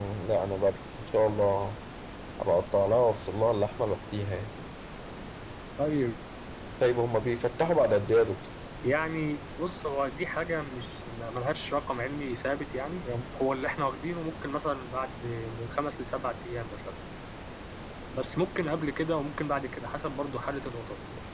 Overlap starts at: none

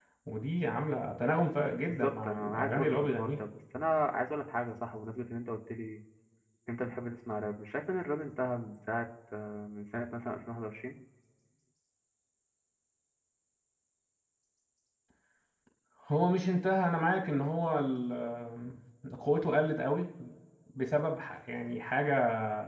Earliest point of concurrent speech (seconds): 1.9 s

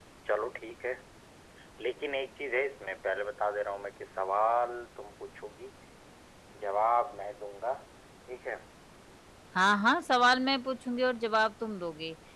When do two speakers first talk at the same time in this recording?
none

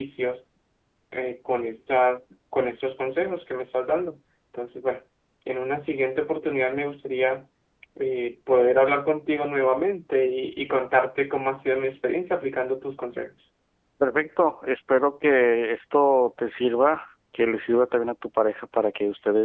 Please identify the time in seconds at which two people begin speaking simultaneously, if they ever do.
none

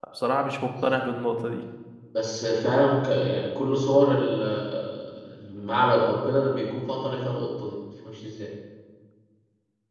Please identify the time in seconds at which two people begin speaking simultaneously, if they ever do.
none

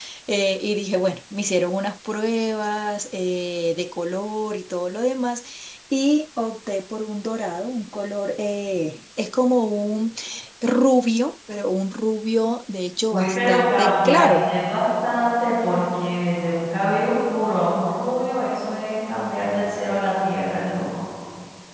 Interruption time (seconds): 13.1 s

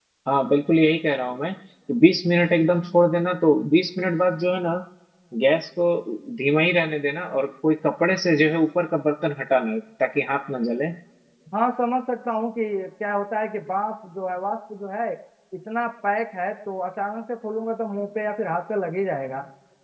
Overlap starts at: none

